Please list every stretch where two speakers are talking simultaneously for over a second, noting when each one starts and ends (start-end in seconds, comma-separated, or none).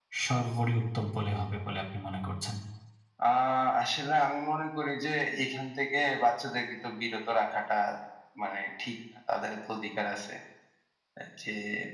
none